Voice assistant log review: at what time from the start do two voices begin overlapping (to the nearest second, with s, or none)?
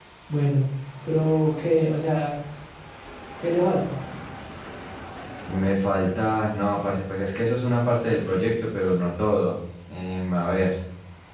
none